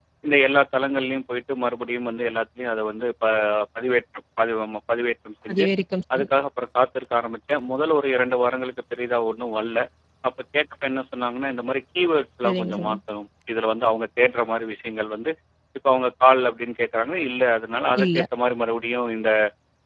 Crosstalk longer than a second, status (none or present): none